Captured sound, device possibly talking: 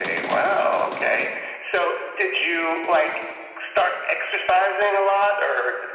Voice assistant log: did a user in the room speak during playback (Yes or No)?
No